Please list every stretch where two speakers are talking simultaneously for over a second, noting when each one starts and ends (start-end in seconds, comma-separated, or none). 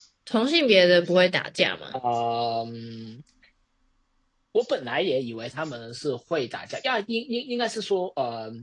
none